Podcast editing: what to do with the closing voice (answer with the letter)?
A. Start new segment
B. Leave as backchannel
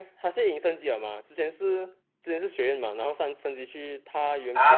A